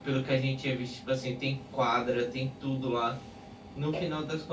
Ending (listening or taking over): listening